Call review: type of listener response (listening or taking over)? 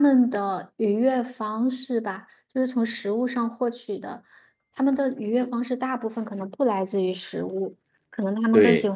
listening